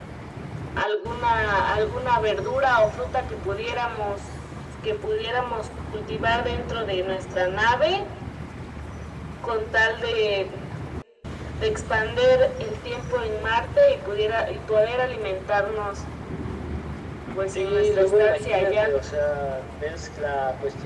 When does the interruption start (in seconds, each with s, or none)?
17.5 s